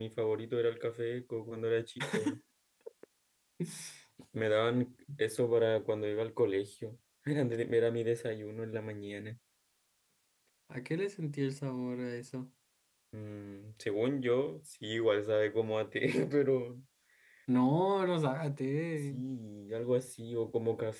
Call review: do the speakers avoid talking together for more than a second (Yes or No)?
Yes